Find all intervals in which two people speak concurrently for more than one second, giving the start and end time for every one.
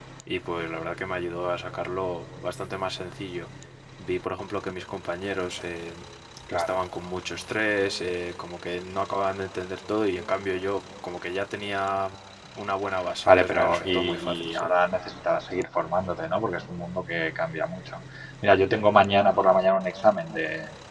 13.2-14.7

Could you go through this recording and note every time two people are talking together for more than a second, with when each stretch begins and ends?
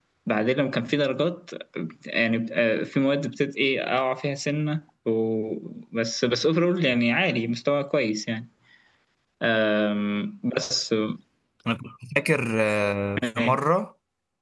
none

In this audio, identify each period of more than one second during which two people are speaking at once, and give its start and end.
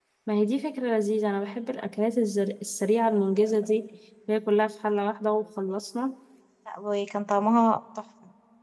none

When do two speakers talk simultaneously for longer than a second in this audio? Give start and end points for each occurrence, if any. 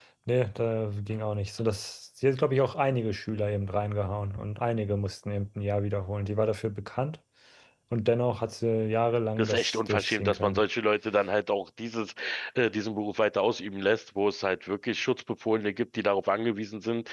9.4-10.6

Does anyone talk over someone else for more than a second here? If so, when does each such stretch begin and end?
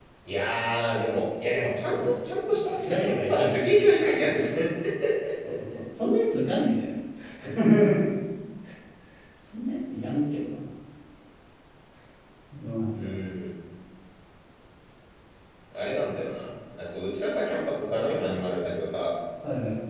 1.9-3.6

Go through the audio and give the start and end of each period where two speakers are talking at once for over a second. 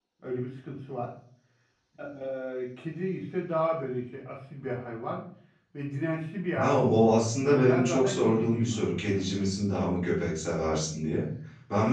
6.5-9.2

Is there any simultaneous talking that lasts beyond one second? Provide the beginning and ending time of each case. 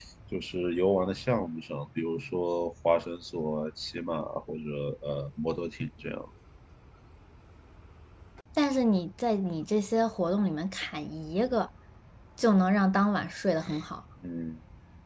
none

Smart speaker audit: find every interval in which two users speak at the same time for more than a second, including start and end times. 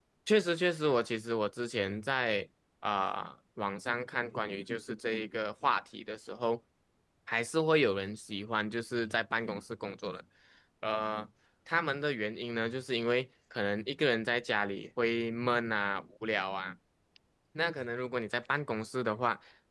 none

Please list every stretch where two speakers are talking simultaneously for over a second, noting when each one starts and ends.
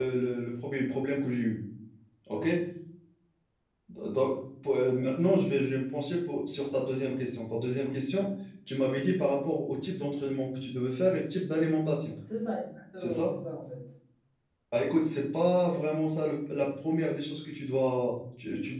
none

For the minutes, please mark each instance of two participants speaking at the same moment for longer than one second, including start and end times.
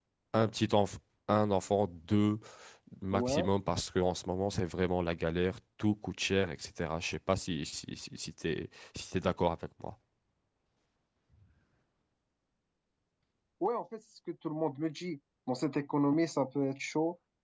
none

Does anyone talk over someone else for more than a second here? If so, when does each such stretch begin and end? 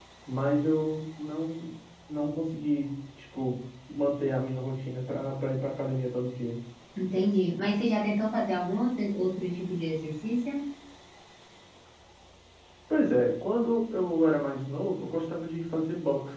none

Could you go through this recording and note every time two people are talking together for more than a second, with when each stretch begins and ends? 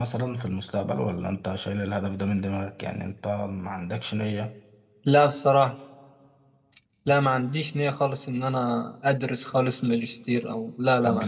none

